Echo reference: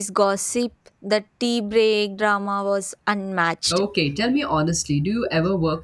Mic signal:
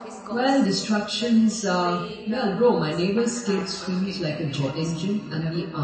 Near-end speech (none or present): present